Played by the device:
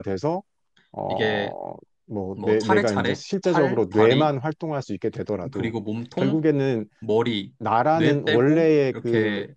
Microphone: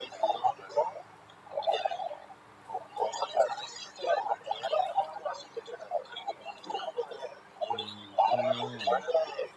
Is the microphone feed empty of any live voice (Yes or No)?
No